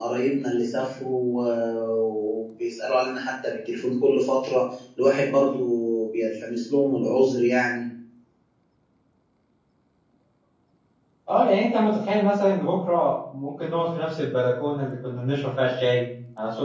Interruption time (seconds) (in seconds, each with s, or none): none